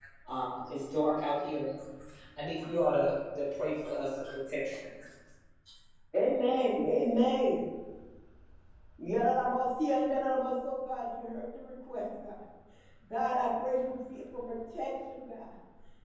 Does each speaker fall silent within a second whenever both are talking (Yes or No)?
Yes